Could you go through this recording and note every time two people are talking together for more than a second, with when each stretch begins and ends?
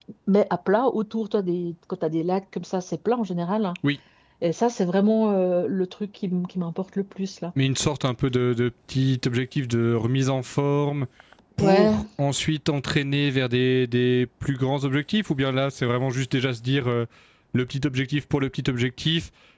none

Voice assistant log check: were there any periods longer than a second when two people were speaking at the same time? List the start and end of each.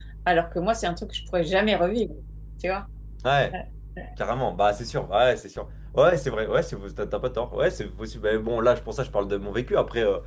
none

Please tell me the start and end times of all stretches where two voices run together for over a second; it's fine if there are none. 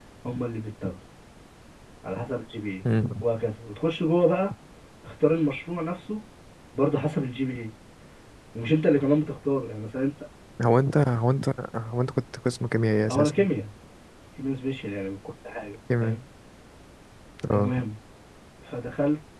none

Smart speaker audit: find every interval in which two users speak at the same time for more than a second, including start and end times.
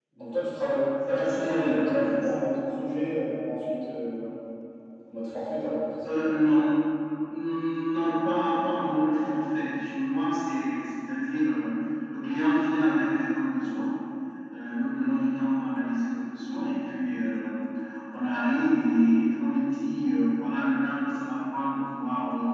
1.1-2.3

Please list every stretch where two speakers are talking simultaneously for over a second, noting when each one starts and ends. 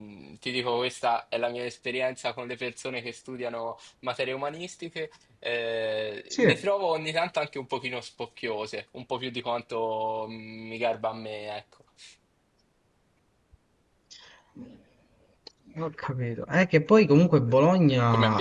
none

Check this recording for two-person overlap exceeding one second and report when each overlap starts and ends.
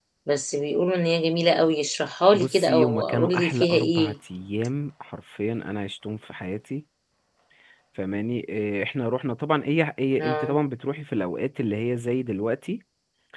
2.3-4.1

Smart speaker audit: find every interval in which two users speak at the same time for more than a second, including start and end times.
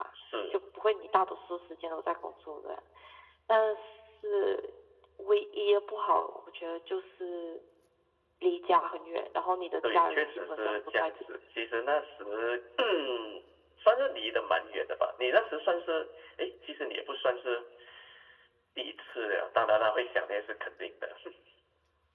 9.9-11.1

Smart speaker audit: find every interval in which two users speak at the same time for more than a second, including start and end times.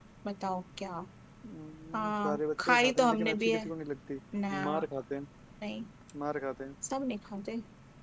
1.9-3.6

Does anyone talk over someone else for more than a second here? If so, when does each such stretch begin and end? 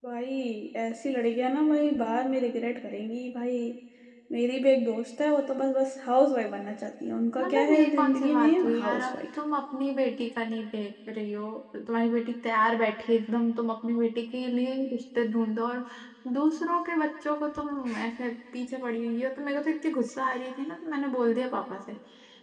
7.4-9.1

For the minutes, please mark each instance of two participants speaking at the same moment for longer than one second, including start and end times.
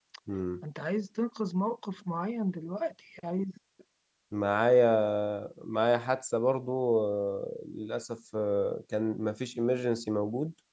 none

